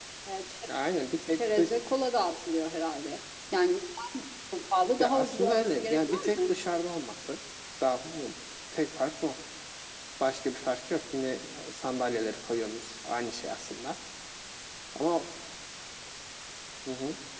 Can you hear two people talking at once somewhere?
Yes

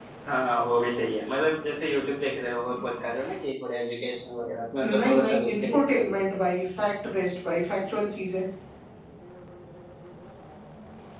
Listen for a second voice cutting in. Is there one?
Yes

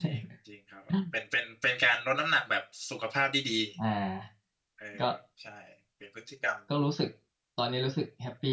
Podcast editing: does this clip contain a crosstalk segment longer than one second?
No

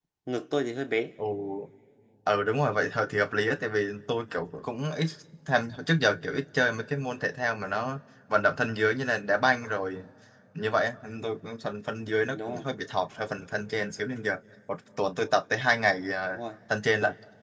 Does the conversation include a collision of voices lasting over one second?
No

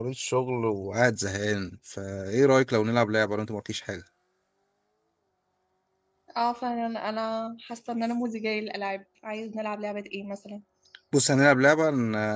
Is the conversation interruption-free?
Yes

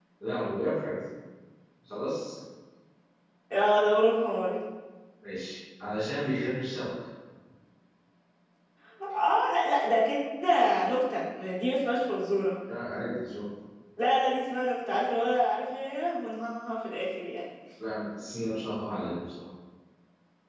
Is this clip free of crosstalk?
Yes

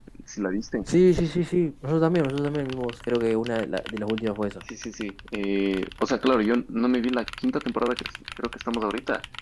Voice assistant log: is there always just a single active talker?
Yes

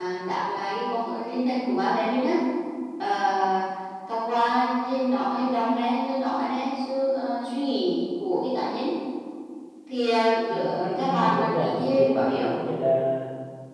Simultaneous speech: Yes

